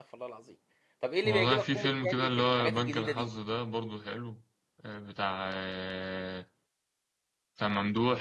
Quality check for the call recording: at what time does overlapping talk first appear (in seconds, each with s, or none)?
1.2 s